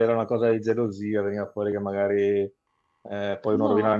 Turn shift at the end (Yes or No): No